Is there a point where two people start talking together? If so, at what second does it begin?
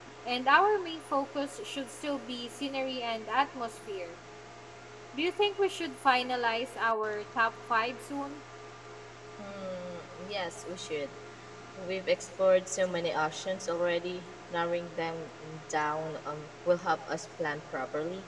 none

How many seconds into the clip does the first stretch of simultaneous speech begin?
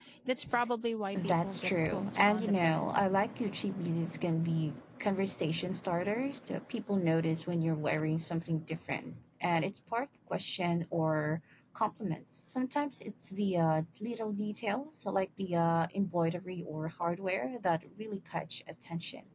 1.1 s

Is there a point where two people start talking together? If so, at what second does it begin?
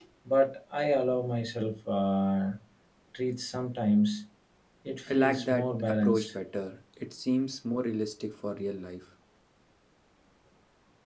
5.1 s

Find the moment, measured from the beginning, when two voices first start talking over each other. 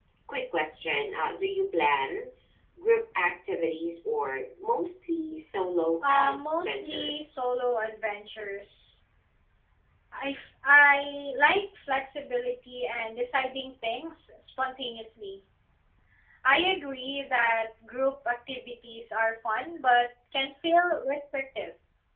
6.0 s

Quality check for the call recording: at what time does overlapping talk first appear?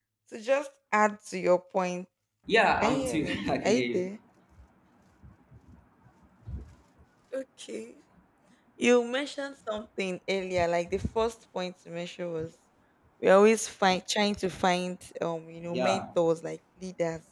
2.8 s

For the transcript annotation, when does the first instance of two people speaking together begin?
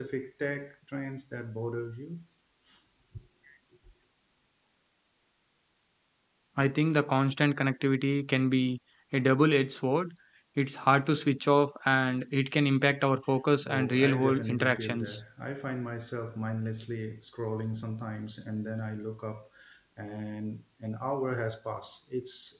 13.6 s

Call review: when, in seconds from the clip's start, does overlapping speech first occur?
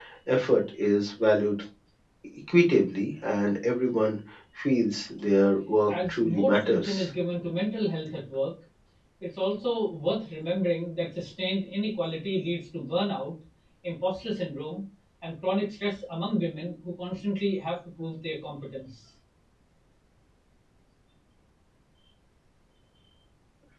5.9 s

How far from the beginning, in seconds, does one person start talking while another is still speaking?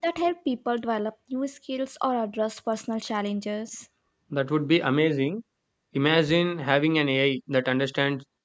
none

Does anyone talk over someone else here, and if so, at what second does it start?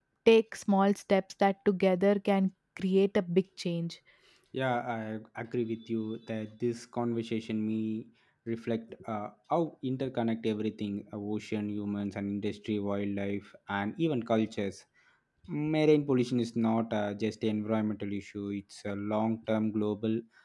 none

